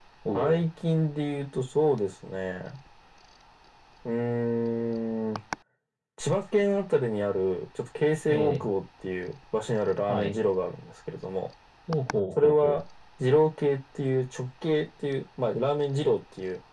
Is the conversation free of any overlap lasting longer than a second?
Yes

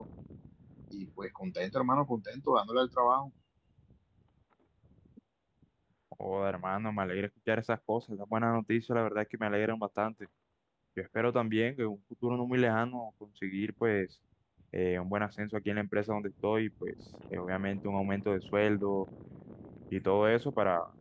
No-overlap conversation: Yes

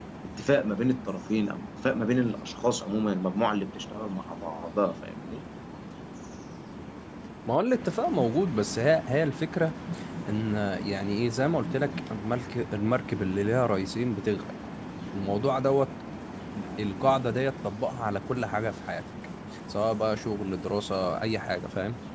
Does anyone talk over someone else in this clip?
No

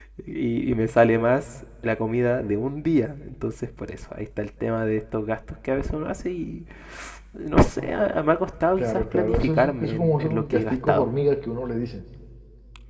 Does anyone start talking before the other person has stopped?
Yes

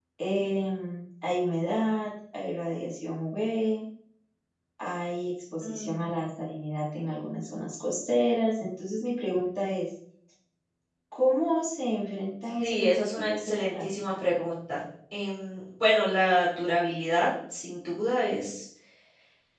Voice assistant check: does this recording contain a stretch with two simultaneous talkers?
Yes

